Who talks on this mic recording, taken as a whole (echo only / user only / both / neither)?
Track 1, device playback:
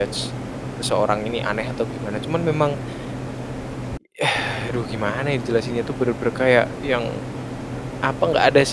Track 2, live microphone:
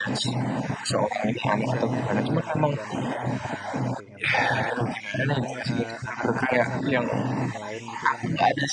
both